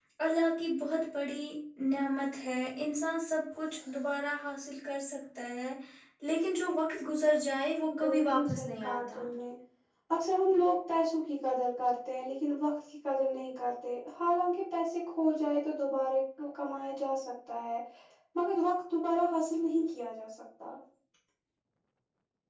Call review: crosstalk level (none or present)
present